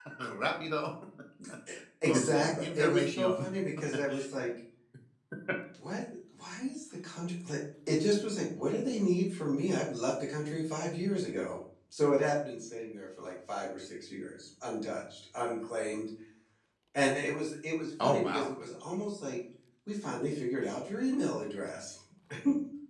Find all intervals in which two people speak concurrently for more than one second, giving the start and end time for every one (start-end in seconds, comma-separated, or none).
2.0-3.4